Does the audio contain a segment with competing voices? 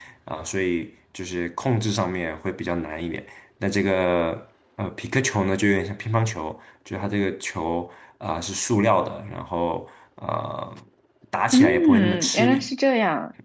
Yes, from 11.5 s

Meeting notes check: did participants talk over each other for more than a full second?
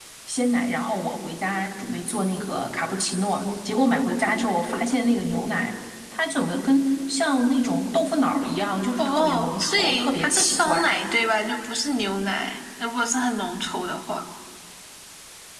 Yes, from 9.0 s

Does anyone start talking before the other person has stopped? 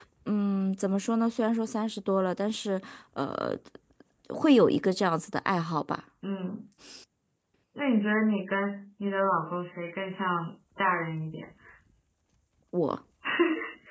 No

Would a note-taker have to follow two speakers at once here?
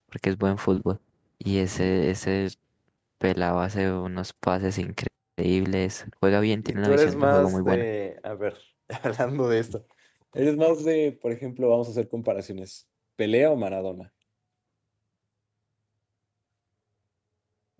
Yes, from 6.6 s

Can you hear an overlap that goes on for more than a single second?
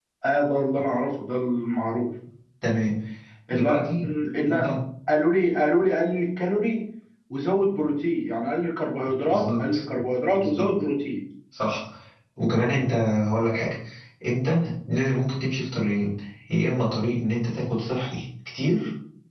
No

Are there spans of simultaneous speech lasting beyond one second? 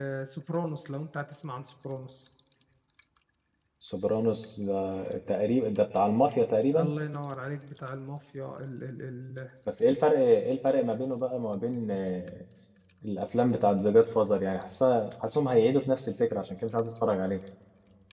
No

